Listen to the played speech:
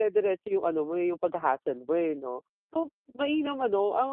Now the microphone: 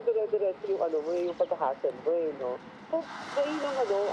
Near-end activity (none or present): none